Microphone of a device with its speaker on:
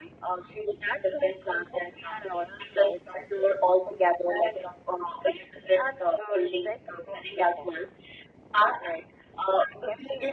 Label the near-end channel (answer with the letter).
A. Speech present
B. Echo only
B